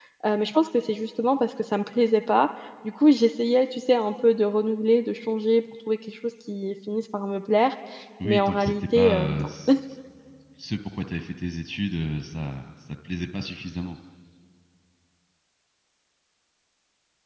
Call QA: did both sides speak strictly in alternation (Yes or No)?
No